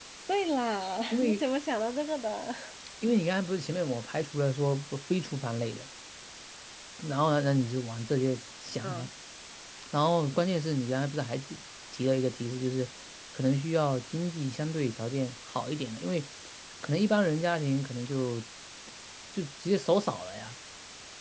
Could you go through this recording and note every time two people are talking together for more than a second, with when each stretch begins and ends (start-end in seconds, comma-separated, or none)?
none